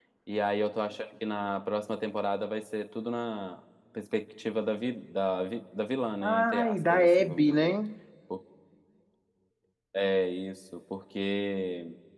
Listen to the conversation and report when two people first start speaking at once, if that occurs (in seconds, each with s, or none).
6.2 s